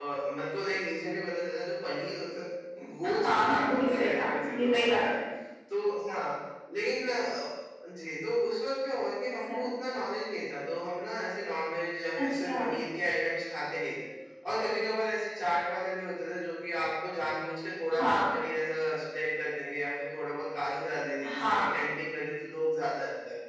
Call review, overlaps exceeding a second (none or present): present